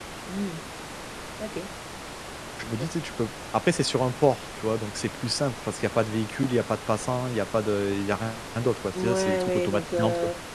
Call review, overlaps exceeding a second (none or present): present